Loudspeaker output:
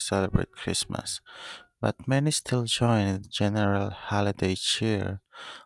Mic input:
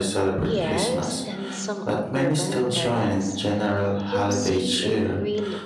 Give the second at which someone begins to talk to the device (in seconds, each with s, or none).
0.4 s